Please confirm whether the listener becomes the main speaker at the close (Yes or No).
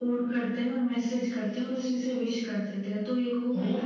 Yes